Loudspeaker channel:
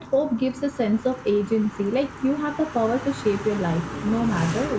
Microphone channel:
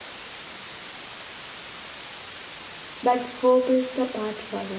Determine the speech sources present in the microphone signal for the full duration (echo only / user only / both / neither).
user only